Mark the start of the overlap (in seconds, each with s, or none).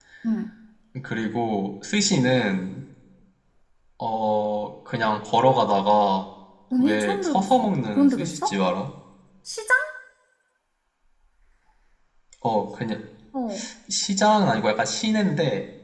6.8 s